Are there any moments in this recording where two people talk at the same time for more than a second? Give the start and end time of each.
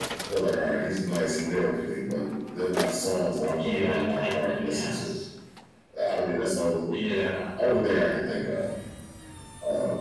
3.6-5.1

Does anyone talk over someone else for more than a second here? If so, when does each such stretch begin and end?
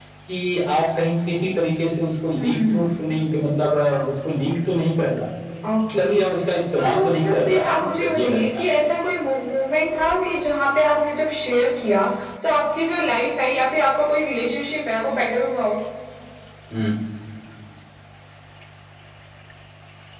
6.8-8.7

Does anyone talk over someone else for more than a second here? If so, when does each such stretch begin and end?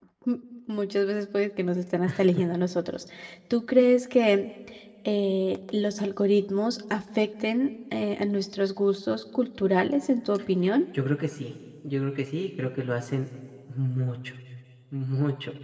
none

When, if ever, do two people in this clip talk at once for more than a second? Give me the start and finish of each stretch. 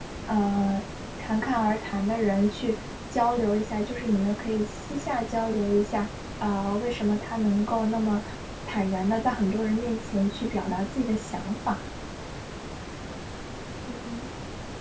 none

